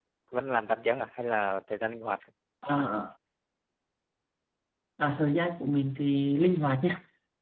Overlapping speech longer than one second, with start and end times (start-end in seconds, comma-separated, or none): none